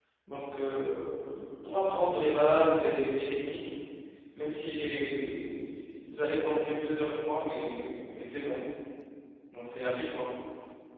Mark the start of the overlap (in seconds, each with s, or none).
none